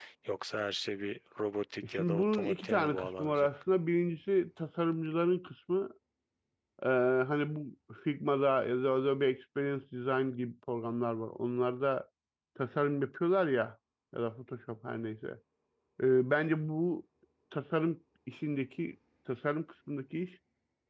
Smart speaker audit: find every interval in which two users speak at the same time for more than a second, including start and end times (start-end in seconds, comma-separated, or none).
1.8-3.5